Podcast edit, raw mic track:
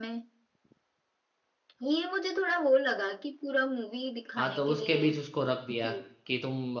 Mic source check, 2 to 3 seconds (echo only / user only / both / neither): echo only